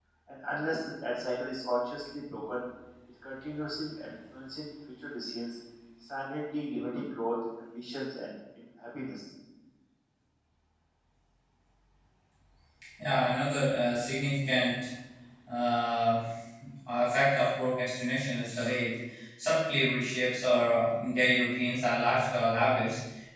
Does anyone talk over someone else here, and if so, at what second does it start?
none

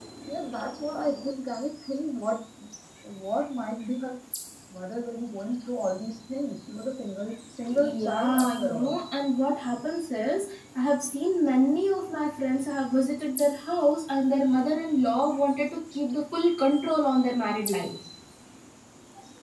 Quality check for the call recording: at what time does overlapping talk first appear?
7.7 s

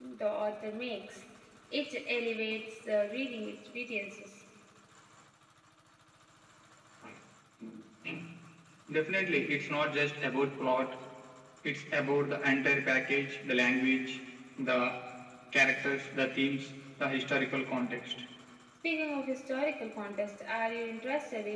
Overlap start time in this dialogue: none

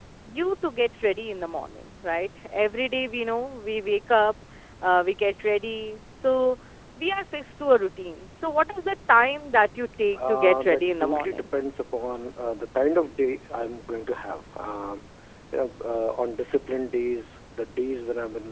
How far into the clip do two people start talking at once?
10.1 s

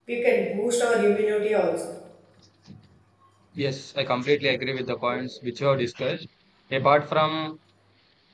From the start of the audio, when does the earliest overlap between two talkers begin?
none

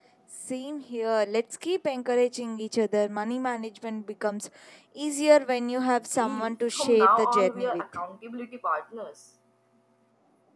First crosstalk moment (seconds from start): 6.1 s

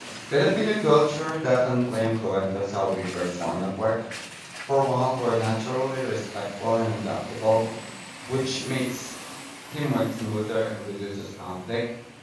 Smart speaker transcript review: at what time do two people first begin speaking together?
none

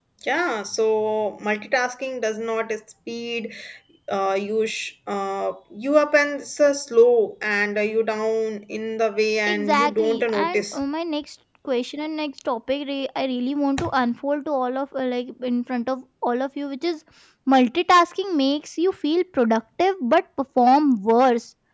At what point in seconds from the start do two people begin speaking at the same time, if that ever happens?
9.5 s

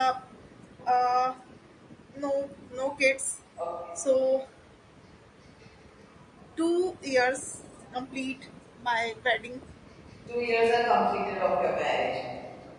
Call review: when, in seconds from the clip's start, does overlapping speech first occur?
none

